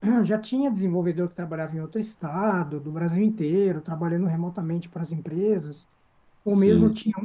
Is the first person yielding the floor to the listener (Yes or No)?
No